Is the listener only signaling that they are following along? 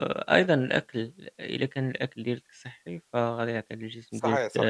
Yes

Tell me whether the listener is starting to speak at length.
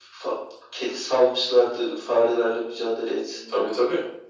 Yes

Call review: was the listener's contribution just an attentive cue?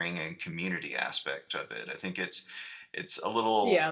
No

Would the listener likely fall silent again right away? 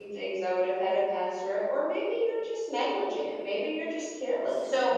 No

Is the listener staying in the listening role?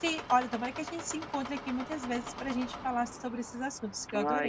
No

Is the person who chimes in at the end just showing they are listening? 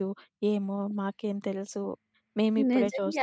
No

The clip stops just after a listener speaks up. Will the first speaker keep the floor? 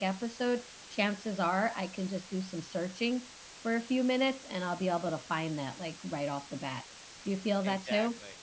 No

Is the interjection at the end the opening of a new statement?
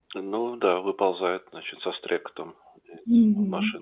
Yes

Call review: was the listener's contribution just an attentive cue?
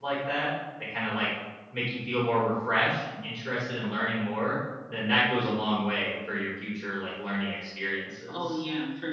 No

